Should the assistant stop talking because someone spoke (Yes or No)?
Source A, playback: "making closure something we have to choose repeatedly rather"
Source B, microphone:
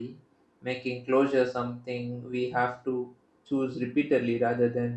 No